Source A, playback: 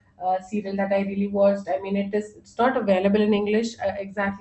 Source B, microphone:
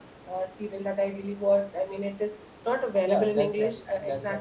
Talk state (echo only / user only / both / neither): both